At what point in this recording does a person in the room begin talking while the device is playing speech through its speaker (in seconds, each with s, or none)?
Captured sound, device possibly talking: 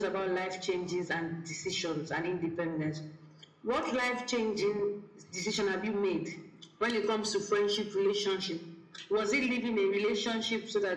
none